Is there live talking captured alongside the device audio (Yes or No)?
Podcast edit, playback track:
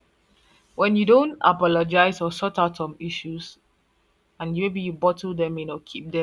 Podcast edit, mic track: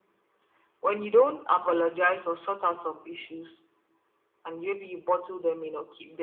No